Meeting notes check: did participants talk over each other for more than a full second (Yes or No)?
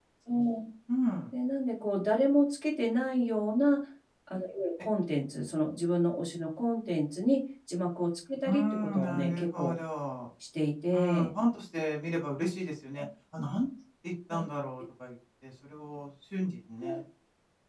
Yes